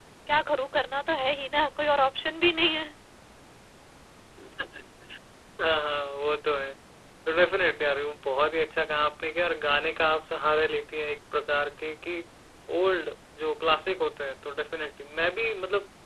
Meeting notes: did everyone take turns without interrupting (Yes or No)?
Yes